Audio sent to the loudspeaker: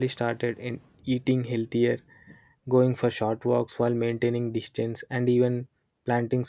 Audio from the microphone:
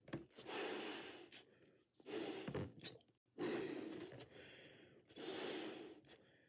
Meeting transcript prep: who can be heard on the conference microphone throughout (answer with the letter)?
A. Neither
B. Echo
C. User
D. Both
A